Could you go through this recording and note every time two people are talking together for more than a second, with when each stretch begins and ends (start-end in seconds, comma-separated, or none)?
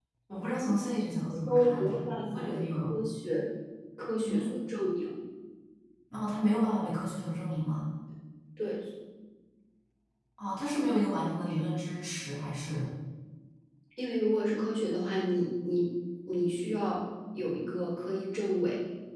1.5-2.9